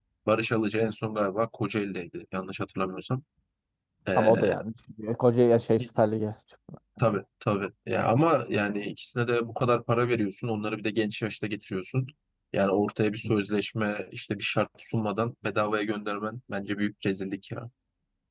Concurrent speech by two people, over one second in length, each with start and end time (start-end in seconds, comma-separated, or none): none